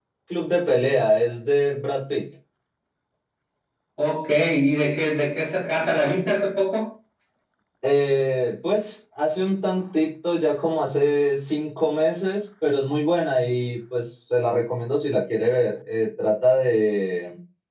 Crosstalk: none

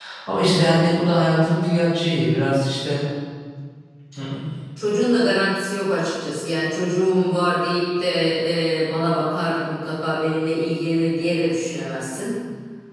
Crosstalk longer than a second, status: none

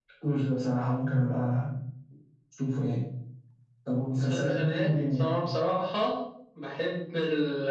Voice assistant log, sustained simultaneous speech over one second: present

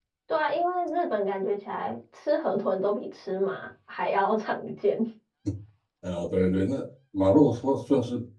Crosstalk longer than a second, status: none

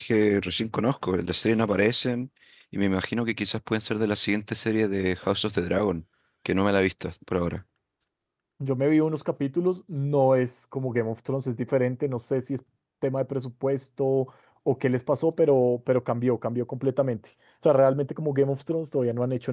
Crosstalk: none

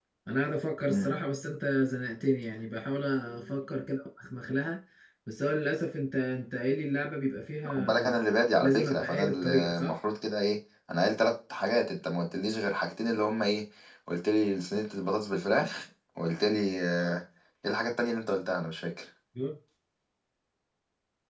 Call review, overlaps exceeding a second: present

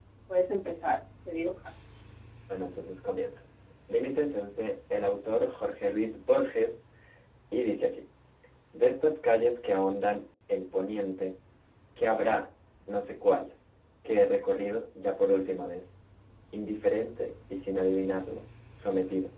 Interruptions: none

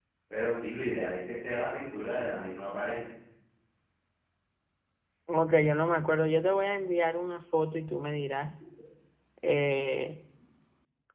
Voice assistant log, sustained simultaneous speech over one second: none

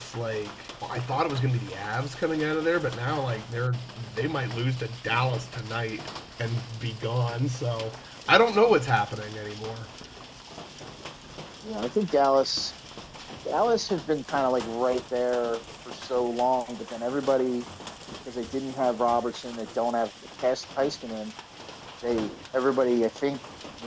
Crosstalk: none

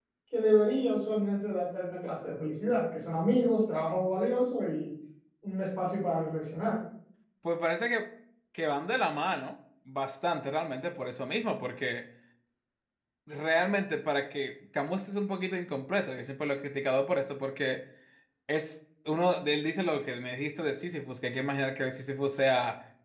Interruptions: none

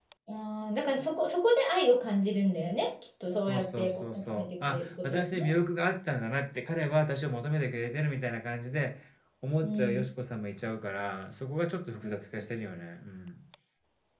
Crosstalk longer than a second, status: present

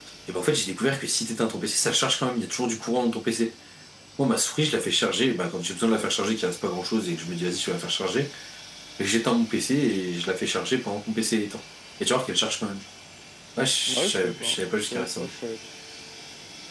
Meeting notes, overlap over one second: present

